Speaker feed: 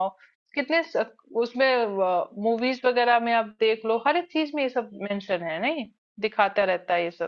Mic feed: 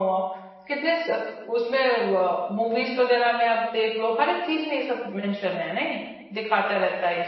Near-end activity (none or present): none